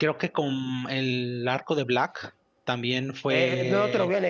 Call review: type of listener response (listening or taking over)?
taking over